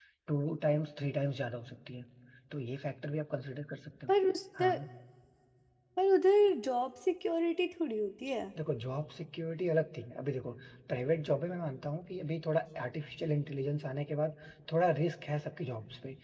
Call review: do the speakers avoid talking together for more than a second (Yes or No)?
Yes